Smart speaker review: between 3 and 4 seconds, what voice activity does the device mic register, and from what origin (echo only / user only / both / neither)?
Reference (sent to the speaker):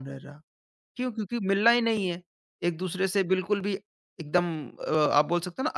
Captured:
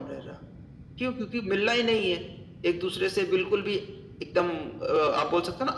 echo only